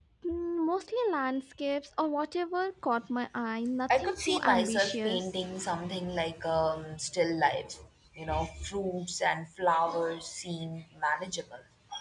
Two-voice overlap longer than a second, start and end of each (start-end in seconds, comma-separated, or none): 4.0-5.3